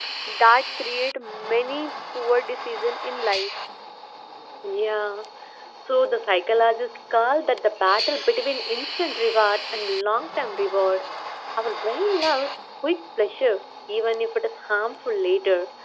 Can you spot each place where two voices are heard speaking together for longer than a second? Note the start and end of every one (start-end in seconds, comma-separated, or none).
none